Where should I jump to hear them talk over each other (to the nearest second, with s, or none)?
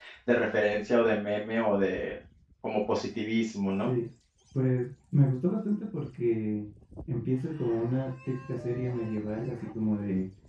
none